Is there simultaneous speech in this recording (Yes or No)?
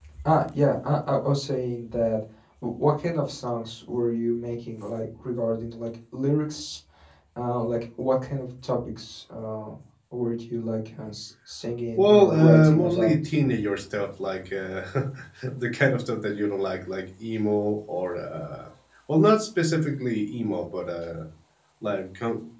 Yes